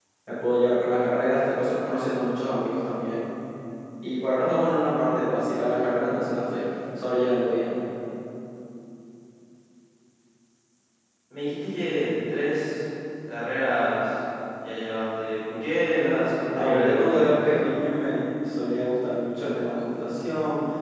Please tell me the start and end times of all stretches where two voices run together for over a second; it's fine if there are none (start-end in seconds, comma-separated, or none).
16.5-17.8